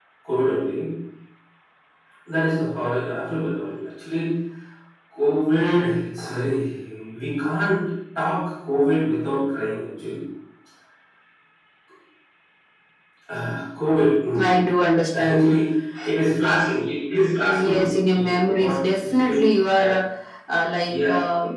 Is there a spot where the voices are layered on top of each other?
Yes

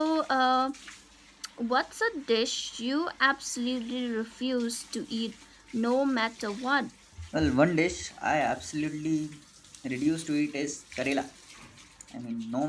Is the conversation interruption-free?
Yes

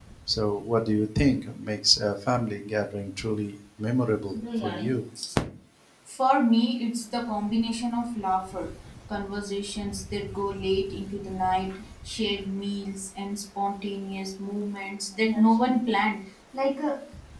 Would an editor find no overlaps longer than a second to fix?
Yes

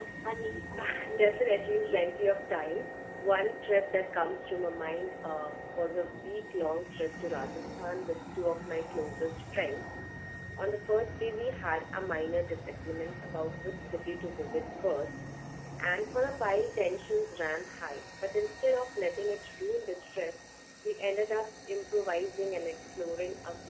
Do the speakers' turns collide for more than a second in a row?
Yes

